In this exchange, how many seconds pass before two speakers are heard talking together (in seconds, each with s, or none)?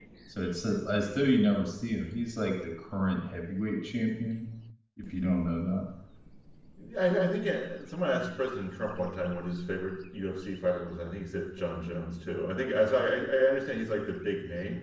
none